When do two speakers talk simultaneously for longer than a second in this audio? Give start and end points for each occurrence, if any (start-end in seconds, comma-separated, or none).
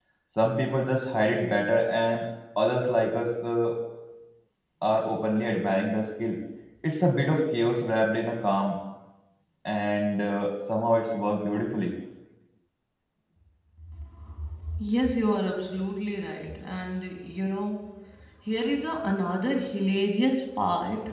none